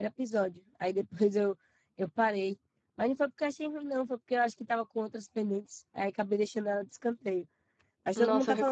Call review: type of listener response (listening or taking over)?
taking over